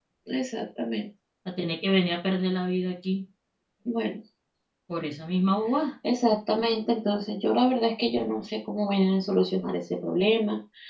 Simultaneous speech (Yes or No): No